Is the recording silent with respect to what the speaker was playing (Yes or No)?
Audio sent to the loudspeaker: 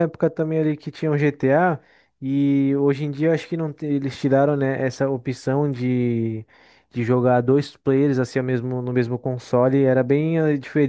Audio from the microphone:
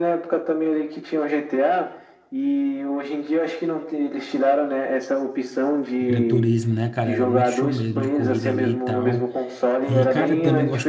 No